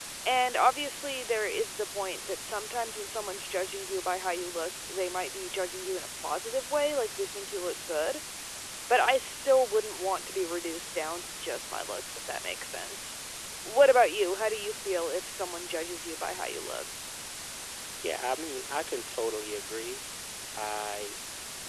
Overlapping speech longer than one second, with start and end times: none

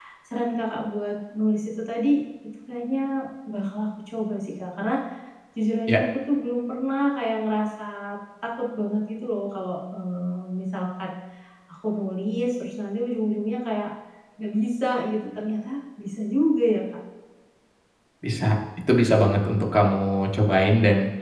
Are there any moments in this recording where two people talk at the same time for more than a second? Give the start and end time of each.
none

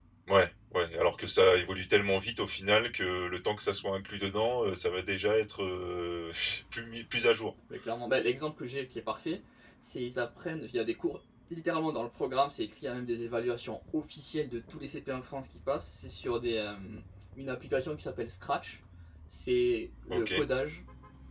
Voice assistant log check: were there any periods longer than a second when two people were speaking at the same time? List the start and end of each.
none

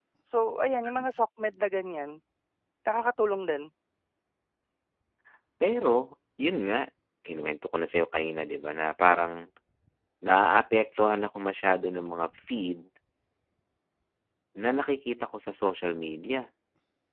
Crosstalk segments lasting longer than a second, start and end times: none

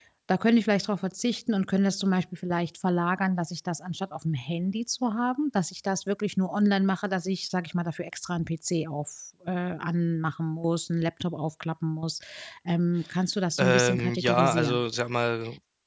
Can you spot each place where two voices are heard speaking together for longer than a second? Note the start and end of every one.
13.6-14.8

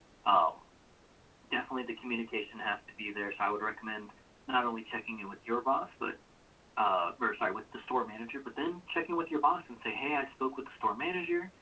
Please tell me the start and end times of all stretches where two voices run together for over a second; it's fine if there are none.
none

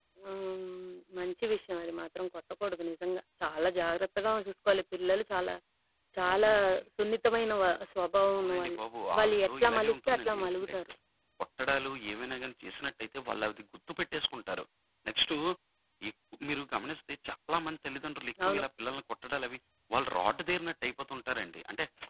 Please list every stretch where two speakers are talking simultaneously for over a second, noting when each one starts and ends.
9.2-10.7

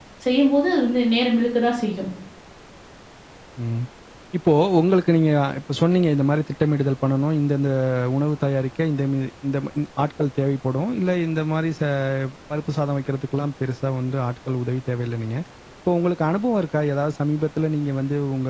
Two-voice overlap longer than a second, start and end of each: none

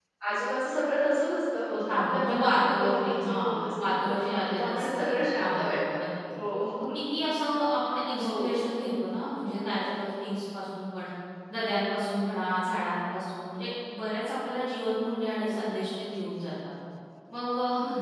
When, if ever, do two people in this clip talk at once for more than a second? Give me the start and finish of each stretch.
1.7-6.0

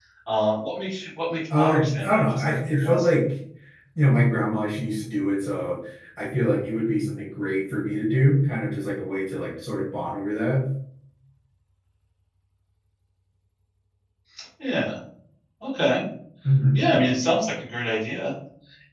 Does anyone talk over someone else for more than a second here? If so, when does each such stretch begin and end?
1.6-3.1

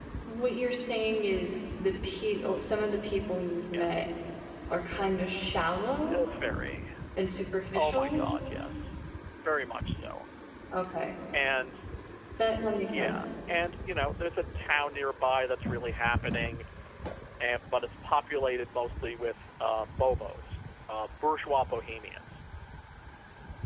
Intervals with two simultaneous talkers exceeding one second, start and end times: none

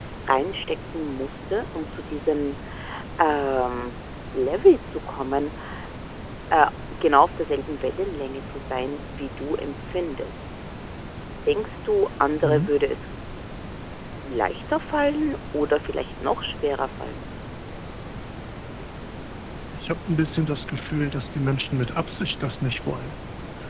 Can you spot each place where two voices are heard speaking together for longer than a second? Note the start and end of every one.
none

